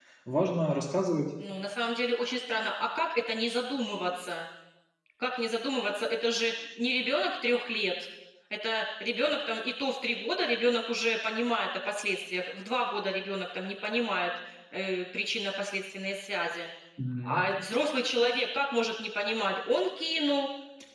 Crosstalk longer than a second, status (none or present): none